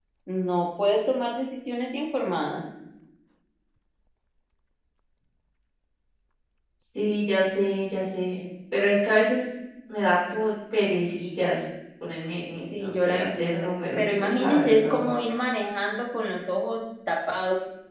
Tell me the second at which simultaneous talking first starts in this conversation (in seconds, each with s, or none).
12.7 s